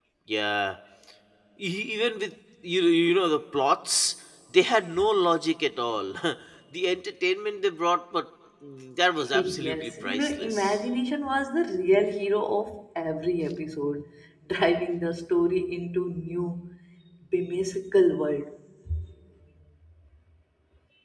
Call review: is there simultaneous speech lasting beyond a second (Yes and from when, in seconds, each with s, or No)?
Yes, from 9.3 s